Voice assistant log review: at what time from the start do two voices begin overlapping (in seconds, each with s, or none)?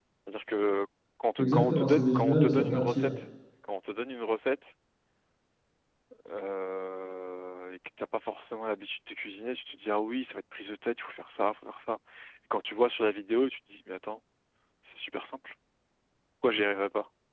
1.4 s